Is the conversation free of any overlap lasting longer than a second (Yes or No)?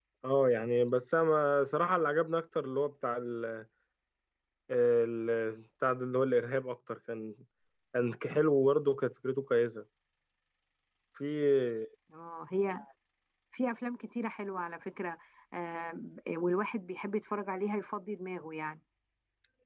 Yes